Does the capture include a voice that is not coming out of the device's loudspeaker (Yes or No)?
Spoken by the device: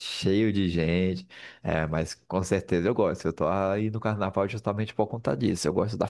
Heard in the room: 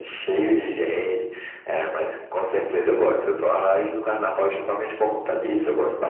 No